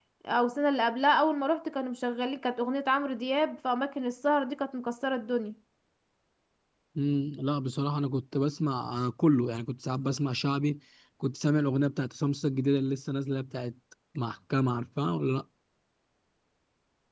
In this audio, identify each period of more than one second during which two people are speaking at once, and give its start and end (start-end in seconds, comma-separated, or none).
none